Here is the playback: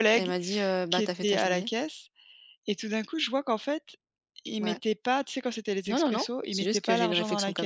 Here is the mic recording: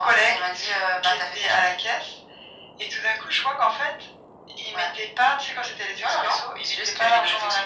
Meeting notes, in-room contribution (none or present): none